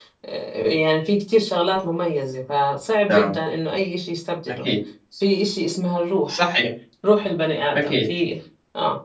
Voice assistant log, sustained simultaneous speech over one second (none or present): none